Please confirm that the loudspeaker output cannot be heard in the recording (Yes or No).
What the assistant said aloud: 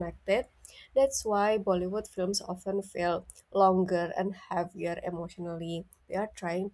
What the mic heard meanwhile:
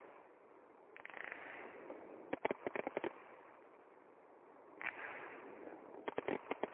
Yes